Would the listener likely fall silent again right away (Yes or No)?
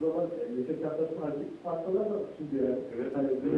Yes